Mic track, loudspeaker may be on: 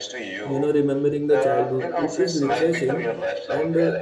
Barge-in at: 0.4 s

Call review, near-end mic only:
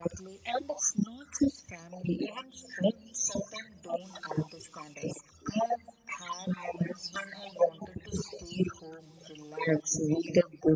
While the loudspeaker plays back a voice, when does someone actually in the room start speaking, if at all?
none

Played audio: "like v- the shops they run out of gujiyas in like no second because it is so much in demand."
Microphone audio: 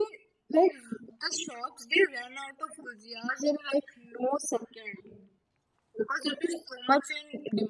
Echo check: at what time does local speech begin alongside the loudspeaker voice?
none

